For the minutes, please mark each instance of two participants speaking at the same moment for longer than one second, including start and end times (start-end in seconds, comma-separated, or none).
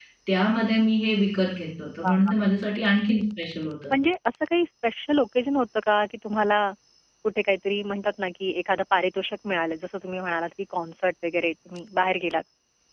none